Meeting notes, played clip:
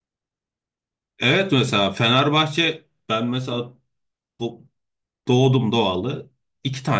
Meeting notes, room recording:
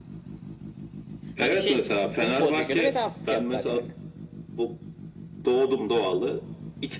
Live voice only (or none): Hani şey o futbolcuya göre bedava fiyatlar yani.